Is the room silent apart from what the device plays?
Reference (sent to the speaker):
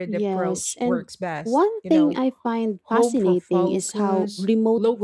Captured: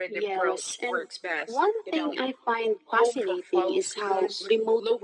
Yes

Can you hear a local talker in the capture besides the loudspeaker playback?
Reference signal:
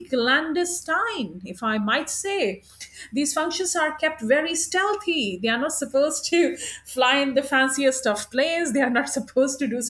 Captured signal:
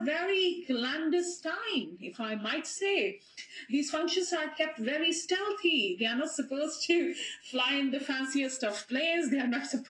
No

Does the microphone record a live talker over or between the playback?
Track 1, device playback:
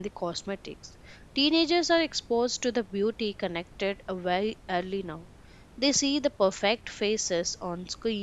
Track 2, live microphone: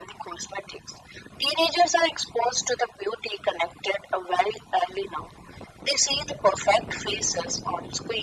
No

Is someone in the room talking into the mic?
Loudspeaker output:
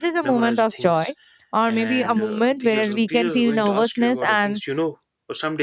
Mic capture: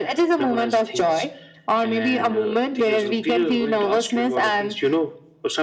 No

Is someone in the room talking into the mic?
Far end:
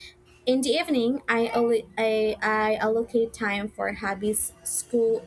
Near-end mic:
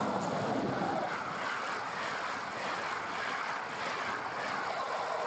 No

